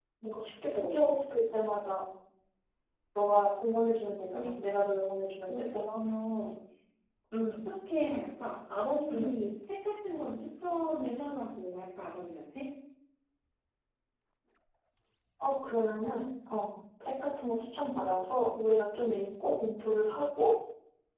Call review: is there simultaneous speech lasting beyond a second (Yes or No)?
No